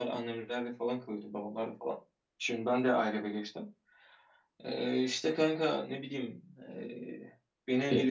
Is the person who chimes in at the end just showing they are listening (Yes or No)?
Yes